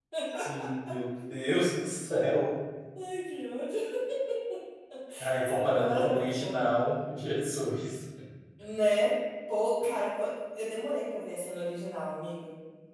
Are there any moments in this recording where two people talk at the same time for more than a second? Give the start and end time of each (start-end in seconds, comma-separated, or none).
5.4-6.7